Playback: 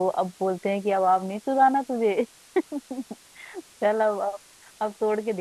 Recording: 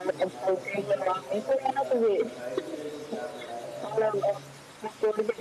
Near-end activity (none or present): present